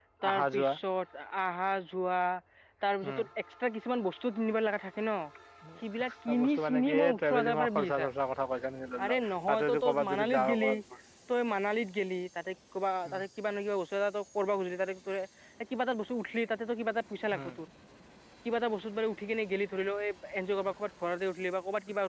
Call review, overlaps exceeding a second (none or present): present